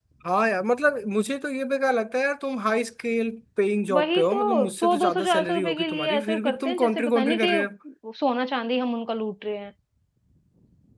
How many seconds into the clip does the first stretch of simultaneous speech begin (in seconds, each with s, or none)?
3.9 s